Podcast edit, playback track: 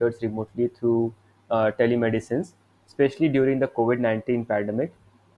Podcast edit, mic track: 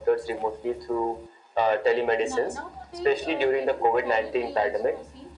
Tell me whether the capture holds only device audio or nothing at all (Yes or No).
No